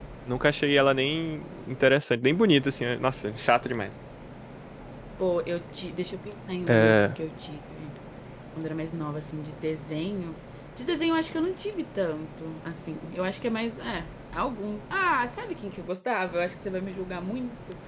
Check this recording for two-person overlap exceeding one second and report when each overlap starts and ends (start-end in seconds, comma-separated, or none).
none